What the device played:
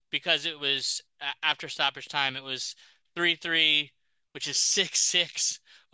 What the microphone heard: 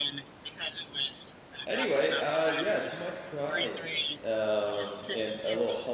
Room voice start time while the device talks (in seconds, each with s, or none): 1.6 s